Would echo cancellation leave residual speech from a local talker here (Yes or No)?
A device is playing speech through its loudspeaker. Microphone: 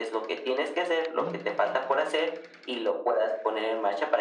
Yes